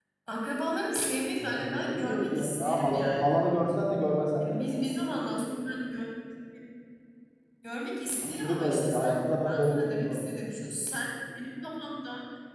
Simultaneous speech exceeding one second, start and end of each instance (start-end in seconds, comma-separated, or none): 1.4-3.5, 8.2-10.4